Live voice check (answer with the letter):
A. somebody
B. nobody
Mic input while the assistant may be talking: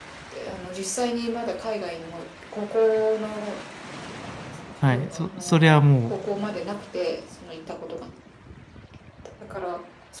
A